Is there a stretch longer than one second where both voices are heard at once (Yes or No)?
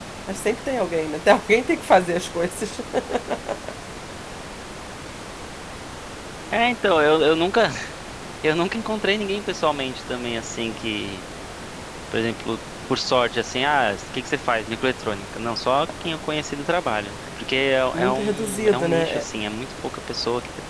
Yes